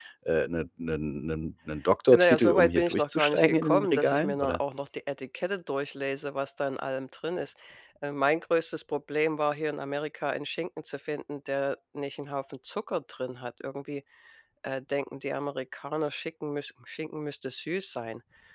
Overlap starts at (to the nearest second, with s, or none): 2 s